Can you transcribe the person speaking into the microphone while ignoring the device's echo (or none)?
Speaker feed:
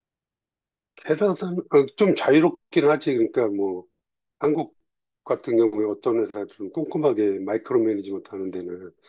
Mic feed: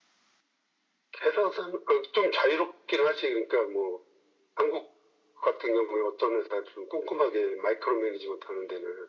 none